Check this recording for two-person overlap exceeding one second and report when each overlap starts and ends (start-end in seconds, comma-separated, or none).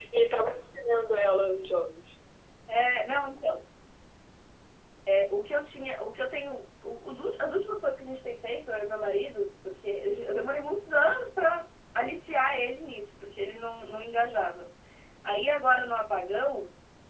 none